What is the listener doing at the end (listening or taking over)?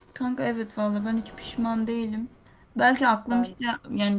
listening